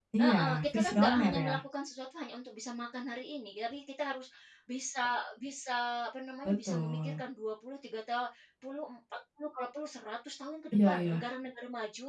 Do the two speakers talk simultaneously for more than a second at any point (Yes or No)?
Yes